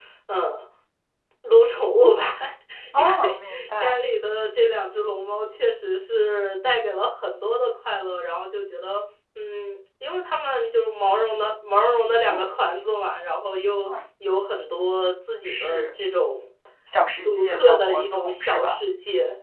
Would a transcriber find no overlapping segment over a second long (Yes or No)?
No